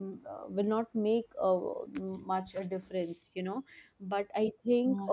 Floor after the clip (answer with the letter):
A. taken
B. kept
B